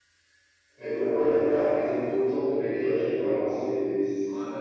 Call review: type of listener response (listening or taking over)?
taking over